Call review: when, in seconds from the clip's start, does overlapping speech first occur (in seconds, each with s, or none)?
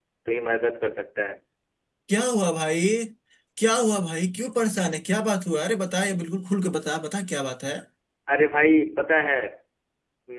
none